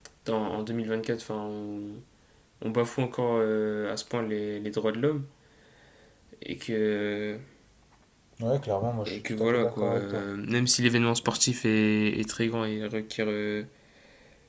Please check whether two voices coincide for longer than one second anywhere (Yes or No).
Yes